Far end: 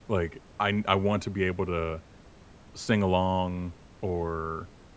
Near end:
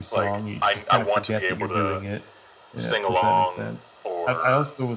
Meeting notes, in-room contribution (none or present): present